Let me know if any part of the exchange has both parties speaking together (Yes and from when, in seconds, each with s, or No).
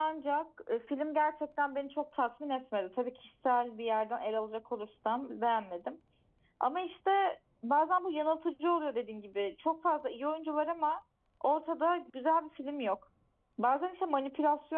No